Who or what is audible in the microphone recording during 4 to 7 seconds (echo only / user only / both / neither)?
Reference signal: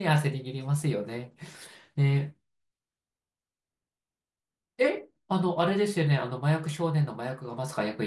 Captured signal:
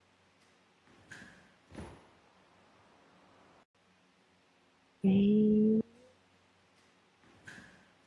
user only